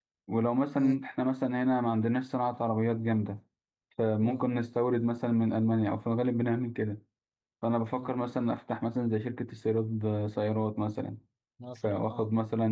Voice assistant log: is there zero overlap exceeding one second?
Yes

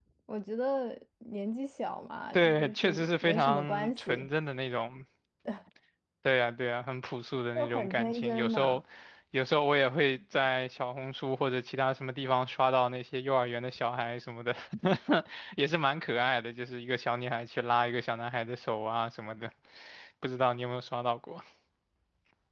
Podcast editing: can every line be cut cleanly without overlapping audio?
No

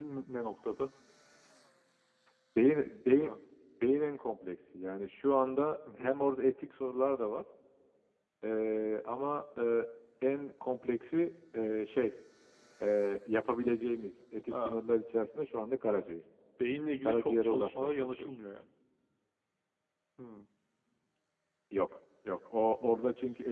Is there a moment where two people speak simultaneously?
Yes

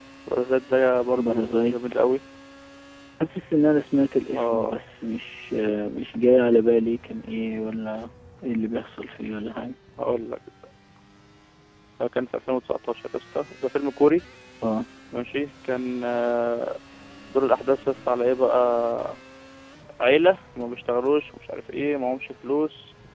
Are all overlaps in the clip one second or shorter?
Yes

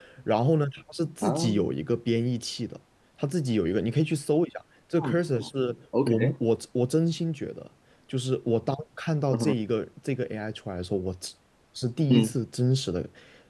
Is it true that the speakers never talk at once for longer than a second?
Yes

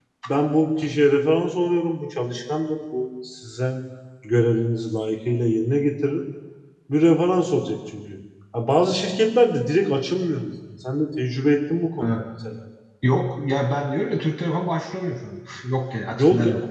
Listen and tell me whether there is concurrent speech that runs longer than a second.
No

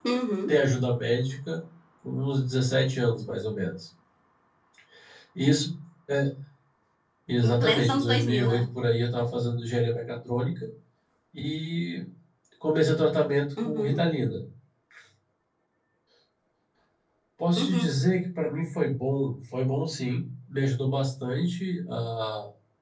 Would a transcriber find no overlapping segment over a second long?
No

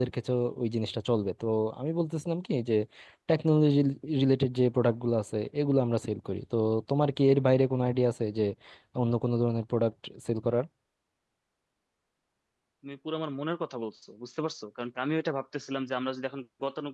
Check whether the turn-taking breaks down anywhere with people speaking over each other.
No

